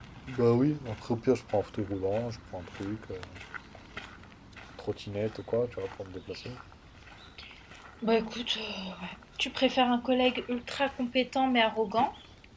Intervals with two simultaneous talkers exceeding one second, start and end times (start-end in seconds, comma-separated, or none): none